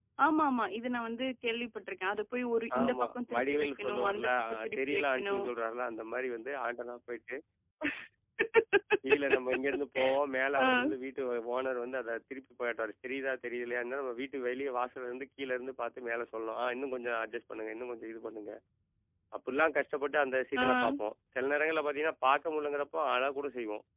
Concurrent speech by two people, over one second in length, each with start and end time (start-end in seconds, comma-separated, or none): 2.8-5.4